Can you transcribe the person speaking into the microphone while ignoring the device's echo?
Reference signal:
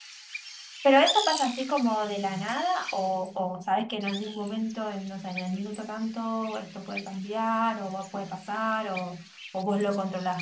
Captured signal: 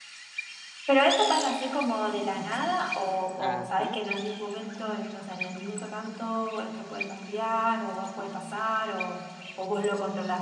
Ajá,

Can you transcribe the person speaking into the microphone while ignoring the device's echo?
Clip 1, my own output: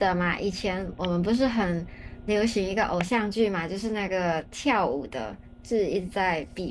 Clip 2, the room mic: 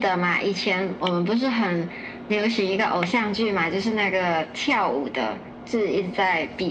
none

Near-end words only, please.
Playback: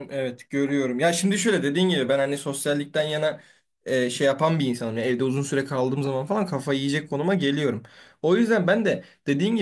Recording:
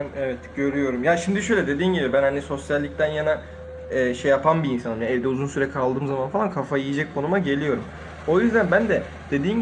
none

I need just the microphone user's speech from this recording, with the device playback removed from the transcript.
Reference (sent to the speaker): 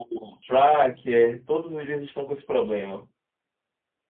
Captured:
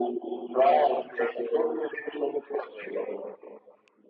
none

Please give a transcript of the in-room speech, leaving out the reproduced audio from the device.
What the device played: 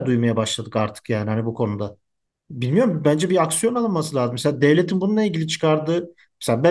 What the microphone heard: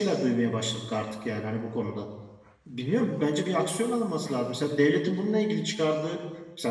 none

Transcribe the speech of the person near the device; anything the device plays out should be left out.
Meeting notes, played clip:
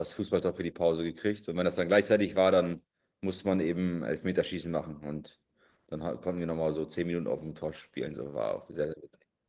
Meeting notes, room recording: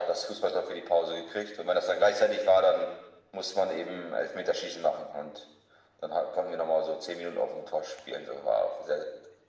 none

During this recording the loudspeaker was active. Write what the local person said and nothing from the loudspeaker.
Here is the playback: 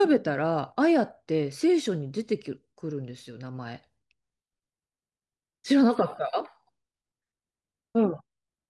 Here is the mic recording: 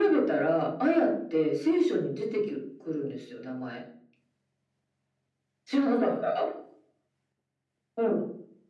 none

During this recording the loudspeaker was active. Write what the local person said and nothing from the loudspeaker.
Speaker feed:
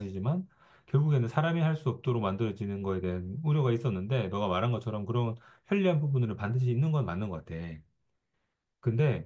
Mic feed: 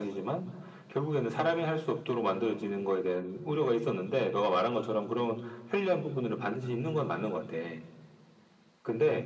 none

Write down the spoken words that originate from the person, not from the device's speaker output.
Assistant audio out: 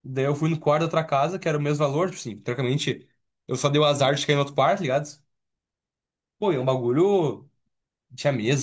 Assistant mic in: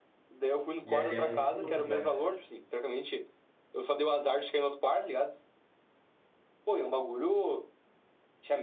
E é dentro do campus, né?

